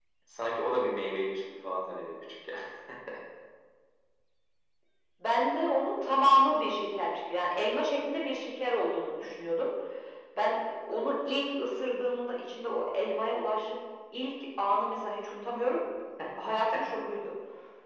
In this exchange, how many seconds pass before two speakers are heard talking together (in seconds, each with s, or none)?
none